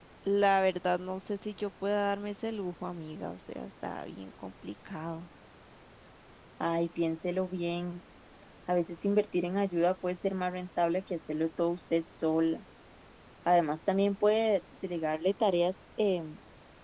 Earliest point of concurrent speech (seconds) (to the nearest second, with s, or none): none